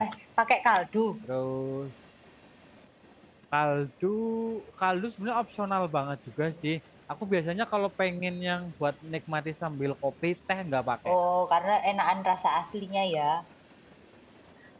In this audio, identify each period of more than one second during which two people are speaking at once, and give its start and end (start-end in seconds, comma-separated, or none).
none